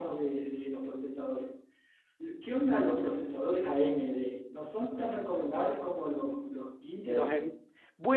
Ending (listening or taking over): taking over